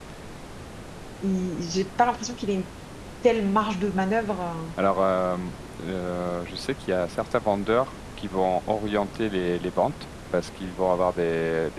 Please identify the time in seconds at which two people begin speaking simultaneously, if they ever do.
none

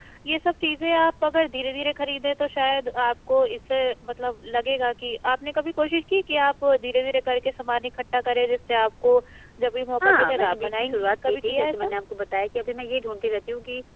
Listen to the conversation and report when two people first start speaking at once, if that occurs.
10.0 s

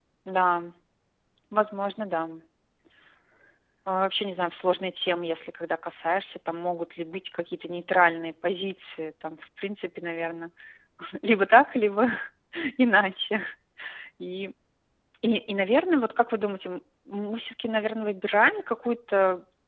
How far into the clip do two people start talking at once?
none

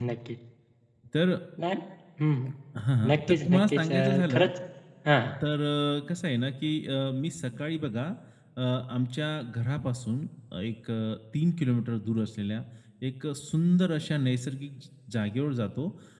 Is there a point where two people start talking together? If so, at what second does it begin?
3.1 s

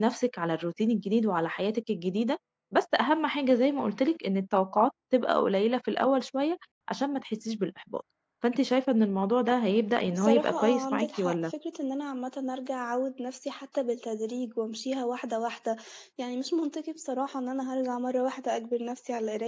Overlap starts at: 10.1 s

